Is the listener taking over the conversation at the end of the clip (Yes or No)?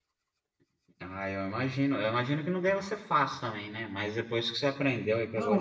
Yes